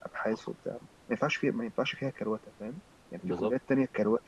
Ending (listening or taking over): listening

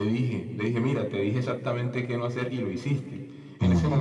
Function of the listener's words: listening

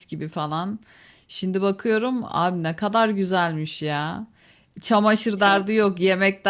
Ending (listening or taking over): listening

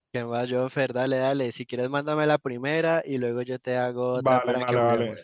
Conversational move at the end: taking over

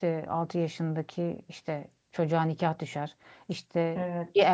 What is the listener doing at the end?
listening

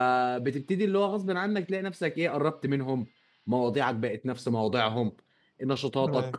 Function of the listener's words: listening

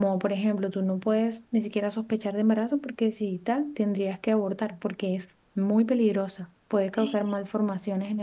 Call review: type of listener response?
listening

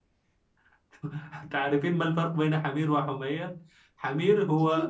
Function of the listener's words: listening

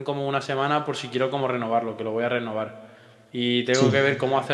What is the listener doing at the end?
listening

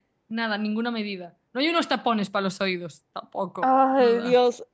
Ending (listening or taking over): taking over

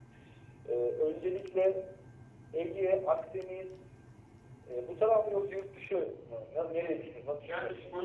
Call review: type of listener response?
taking over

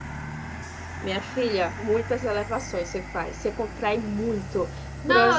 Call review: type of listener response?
taking over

